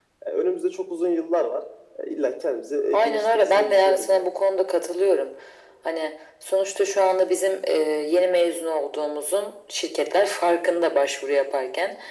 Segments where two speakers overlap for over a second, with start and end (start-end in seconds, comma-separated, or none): 2.9-4.3